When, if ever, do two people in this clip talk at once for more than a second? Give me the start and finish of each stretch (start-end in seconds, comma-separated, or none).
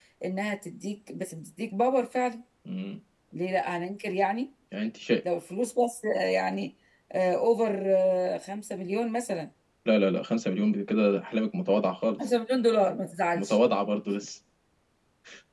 none